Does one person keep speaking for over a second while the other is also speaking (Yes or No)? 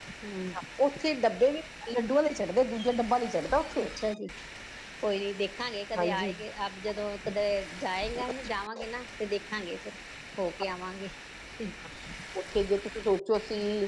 No